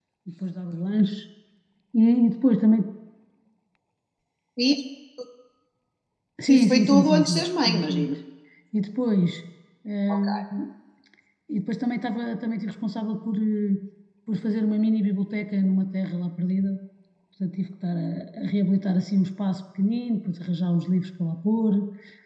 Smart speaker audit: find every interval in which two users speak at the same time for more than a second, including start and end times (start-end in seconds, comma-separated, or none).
6.5-7.9